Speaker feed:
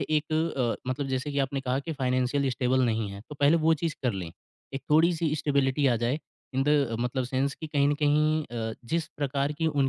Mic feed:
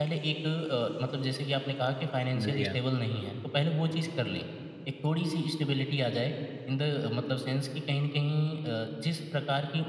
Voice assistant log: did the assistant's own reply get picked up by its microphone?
Yes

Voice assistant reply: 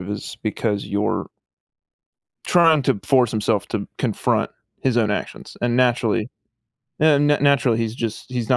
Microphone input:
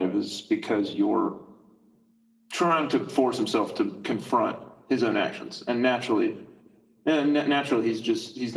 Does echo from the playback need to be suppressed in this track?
Yes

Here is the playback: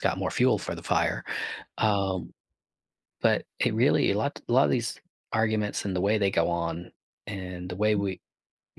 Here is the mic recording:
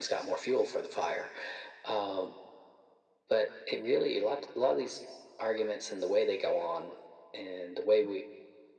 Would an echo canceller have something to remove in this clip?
Yes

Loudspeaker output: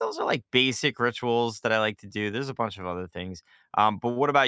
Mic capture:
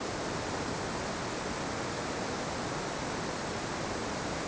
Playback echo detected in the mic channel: No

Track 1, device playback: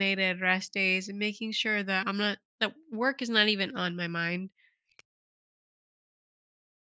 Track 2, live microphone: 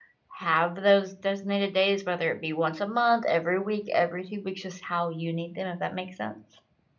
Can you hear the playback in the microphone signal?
No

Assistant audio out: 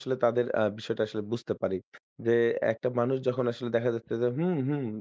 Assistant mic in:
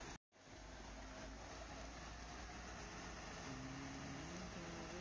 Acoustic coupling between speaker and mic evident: No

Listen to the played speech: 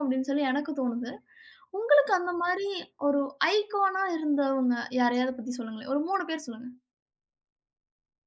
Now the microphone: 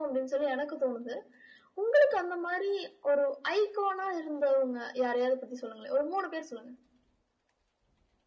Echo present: Yes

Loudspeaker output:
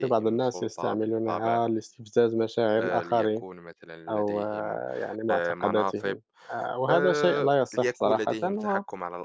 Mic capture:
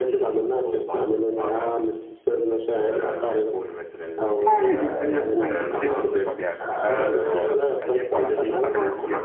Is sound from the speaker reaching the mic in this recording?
Yes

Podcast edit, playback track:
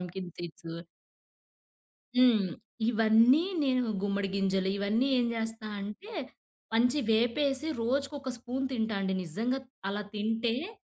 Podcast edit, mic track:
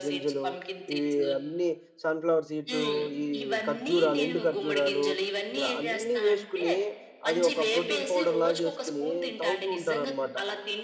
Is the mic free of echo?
No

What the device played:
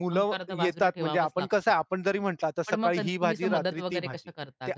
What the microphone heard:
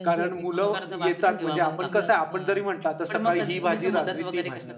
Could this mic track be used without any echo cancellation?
No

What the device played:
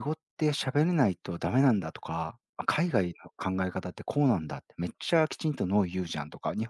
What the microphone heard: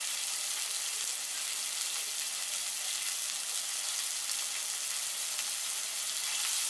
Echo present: No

